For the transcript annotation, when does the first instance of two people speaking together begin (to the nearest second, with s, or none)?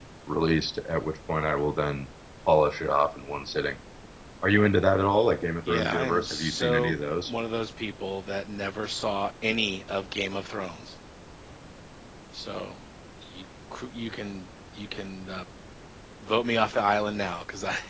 6 s